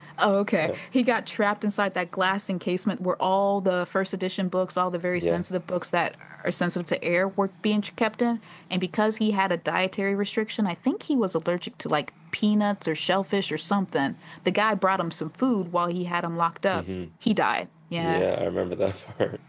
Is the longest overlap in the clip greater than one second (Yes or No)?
No